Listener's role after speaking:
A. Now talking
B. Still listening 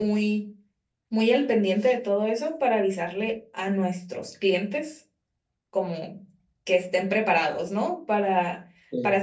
B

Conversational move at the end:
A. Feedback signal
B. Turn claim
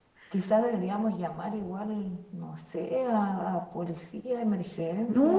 B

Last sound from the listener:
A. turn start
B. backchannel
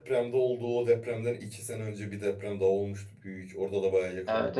A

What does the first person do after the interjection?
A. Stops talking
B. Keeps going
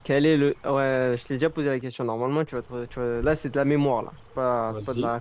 B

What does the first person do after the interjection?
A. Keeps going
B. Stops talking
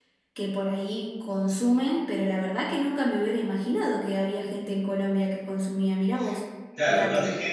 B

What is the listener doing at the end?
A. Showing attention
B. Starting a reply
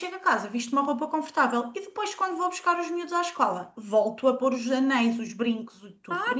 B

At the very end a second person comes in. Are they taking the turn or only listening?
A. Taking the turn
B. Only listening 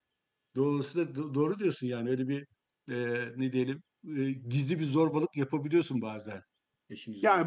A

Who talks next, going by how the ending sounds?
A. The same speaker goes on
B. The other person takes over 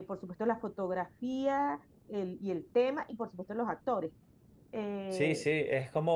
B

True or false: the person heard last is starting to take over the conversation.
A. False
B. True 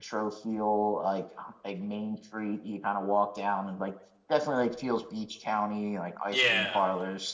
B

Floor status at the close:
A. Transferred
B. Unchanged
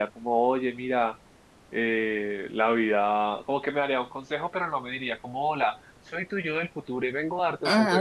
A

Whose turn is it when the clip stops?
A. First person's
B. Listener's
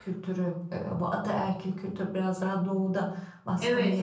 B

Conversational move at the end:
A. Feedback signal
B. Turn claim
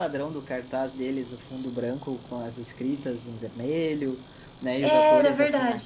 A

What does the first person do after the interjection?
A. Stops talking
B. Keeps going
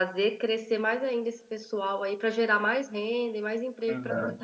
A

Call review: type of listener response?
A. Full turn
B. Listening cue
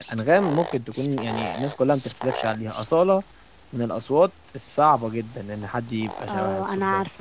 A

